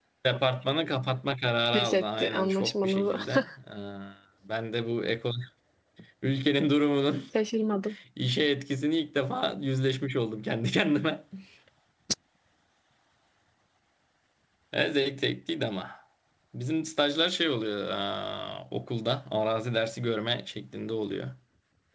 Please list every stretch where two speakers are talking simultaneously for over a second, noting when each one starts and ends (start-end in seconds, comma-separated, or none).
1.7-3.2